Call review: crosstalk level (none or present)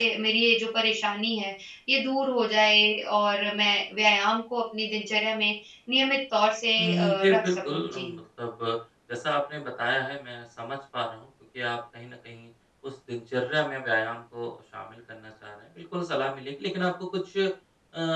present